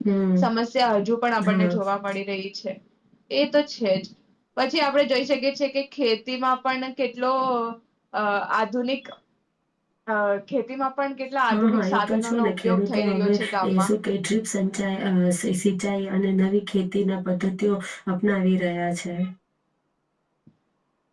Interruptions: present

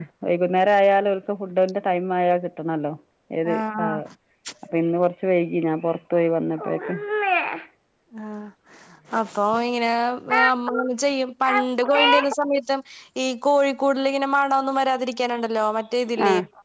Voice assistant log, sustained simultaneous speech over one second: none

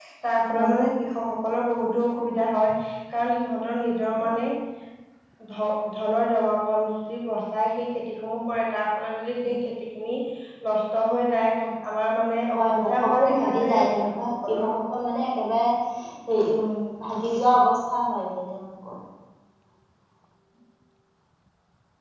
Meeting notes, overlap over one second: present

